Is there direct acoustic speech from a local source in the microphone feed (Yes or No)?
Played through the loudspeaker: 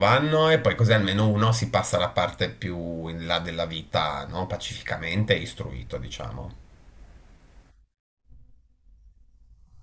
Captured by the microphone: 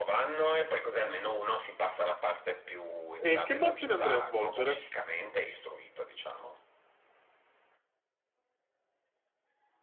Yes